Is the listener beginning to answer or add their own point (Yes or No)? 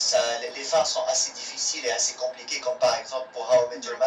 No